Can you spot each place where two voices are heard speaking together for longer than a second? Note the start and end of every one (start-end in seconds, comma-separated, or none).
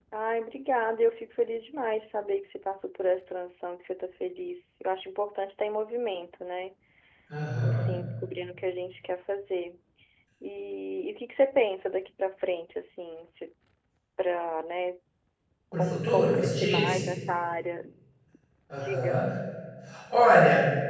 15.7-17.0